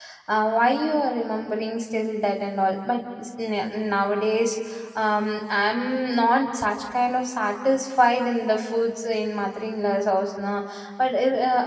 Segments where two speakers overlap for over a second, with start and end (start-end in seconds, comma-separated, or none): none